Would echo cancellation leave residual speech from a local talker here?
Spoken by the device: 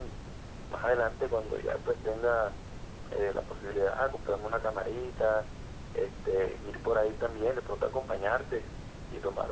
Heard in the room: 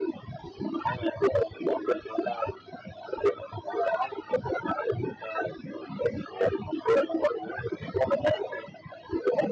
No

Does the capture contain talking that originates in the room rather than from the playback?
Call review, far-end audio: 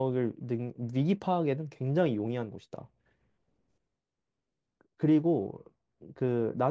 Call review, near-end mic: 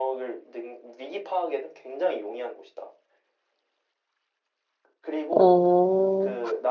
Yes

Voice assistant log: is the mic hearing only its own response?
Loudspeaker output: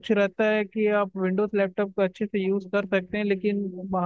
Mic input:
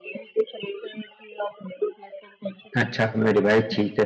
No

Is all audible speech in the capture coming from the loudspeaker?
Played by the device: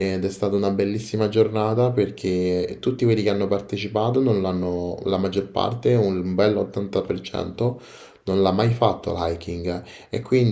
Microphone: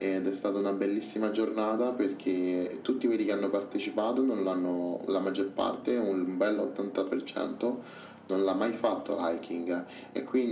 Yes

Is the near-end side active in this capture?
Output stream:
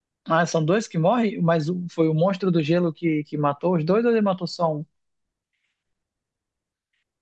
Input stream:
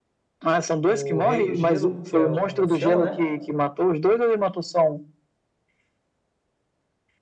Yes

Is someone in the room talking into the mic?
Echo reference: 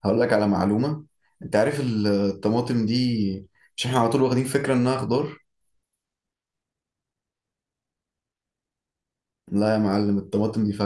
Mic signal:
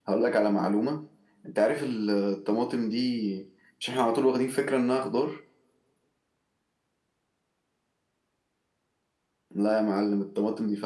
No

